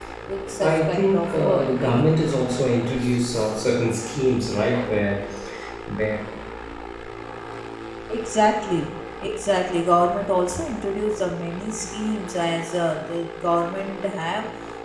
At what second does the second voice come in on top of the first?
1 s

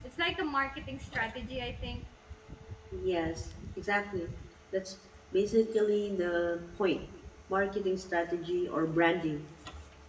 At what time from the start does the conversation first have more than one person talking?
none

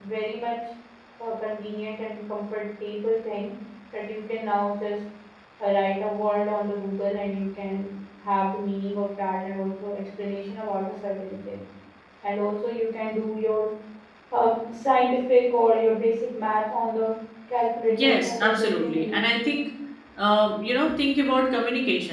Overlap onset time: 18 s

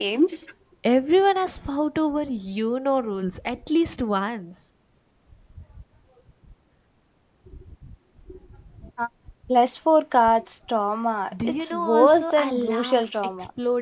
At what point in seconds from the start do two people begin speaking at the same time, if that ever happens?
11 s

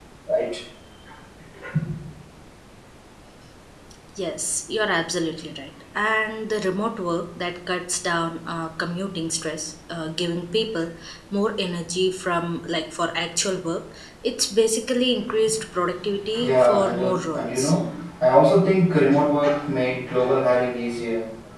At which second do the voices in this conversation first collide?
16 s

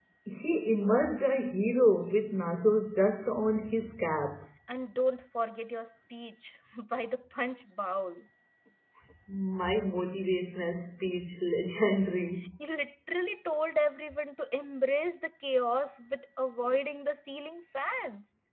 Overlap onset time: none

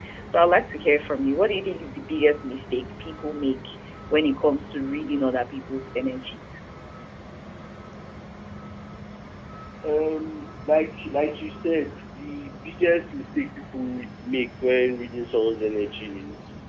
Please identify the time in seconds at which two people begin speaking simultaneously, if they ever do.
none

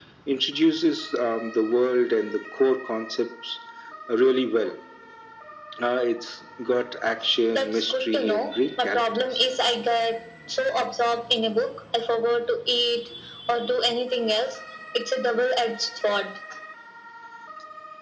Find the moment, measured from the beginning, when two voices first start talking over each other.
8 s

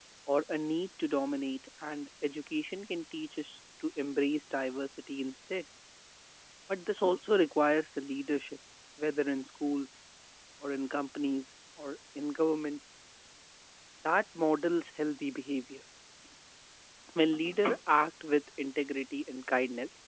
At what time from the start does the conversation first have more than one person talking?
none

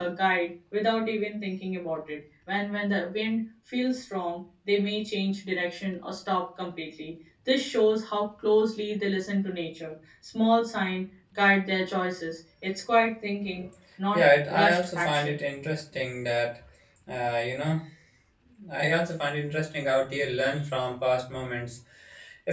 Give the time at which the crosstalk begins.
14 s

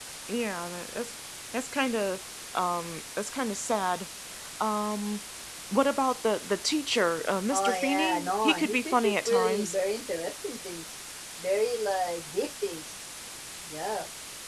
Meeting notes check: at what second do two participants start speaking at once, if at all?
8 s

